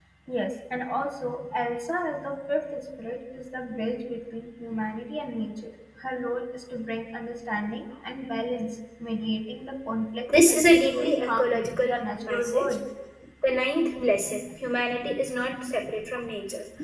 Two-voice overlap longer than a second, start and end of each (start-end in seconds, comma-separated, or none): 10.5-12.8